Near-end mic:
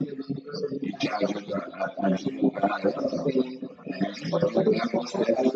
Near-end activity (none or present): none